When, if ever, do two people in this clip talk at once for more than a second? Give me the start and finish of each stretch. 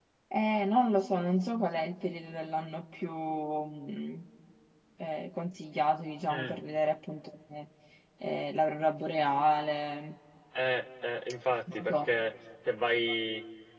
none

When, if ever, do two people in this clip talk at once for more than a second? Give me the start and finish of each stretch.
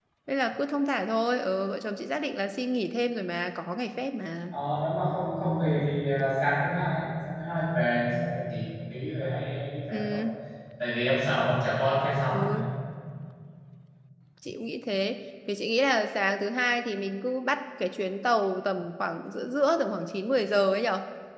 none

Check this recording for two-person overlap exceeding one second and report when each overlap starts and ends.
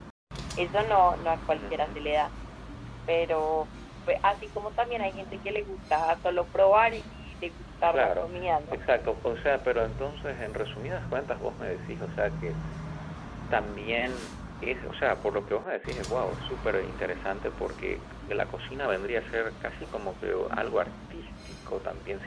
none

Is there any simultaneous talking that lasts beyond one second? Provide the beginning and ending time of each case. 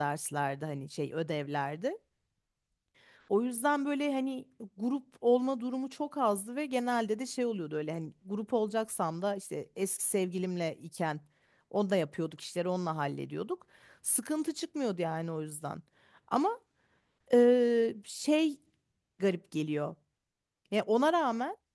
none

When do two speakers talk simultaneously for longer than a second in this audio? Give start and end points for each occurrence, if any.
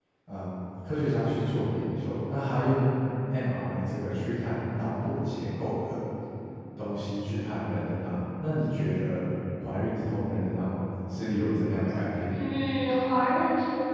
none

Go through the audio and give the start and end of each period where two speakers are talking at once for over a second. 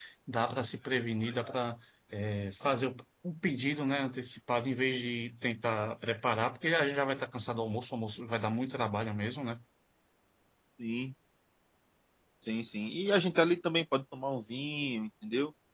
none

